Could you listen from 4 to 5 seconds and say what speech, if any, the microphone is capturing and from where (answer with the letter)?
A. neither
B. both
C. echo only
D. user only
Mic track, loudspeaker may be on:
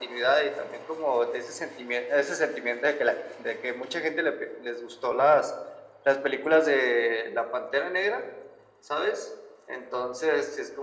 C